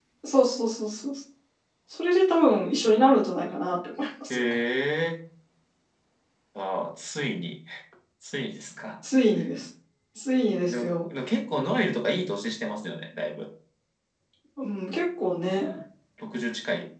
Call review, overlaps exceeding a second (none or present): none